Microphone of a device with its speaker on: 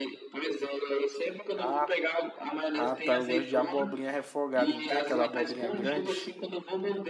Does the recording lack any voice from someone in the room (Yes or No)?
No